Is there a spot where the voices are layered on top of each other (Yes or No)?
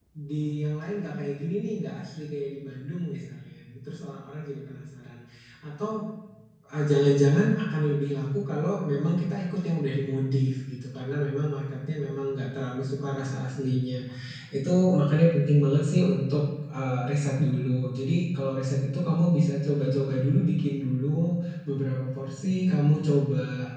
No